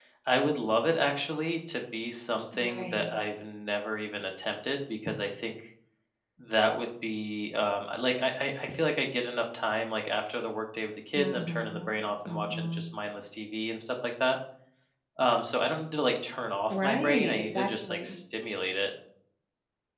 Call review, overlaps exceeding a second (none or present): present